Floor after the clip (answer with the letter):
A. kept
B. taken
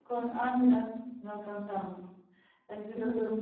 A